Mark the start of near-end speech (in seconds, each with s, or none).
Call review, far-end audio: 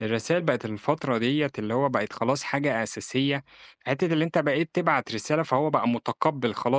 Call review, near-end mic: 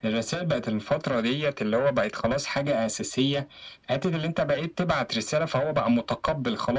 none